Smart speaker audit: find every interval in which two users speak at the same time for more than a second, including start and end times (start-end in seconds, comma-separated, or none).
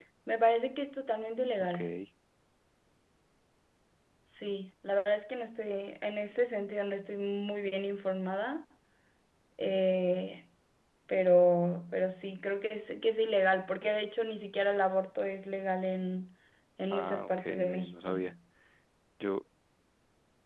16.9-18.2